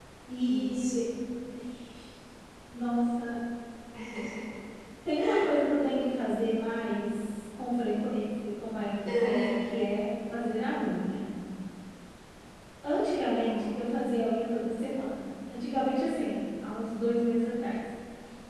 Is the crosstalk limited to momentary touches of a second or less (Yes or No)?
Yes